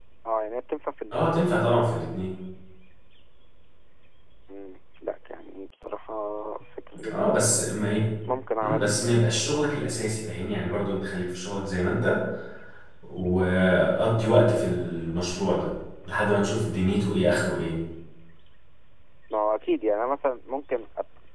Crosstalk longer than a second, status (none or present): none